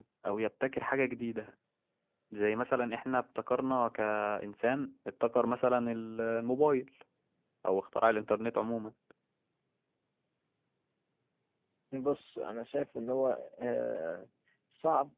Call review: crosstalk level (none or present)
none